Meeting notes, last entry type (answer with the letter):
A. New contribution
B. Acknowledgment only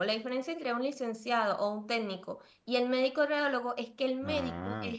B